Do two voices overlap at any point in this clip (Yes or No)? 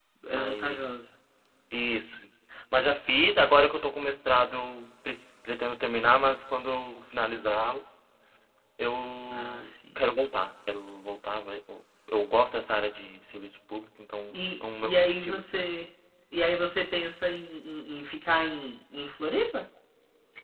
Yes